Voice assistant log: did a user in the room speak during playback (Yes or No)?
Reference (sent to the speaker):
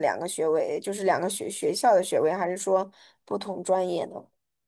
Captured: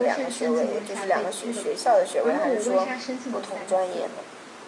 Yes